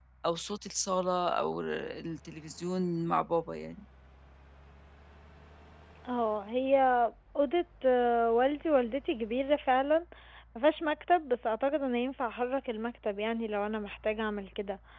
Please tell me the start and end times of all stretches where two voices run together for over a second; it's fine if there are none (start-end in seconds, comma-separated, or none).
none